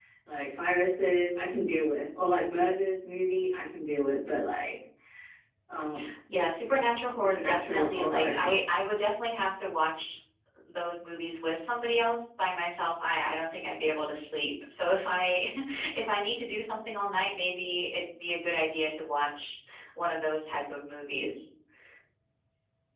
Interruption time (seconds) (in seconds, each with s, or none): 7.1 s